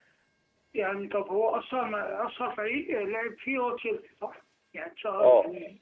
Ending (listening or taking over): taking over